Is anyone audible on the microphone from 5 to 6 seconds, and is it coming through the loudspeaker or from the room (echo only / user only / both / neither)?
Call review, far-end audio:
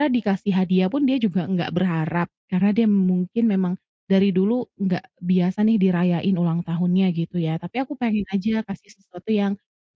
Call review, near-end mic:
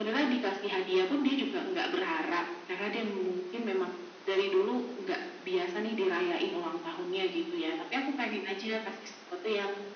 echo only